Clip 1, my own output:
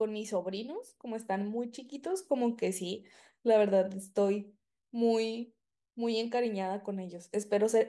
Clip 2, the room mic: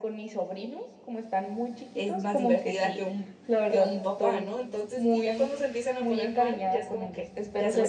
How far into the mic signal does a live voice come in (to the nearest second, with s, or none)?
2 s